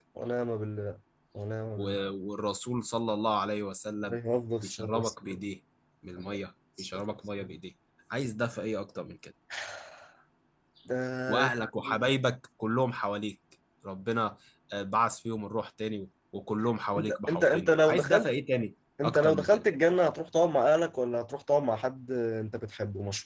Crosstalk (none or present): present